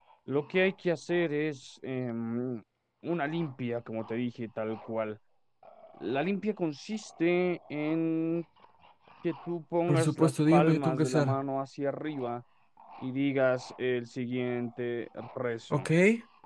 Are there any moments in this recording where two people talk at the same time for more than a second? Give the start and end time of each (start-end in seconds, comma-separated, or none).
9.9-11.4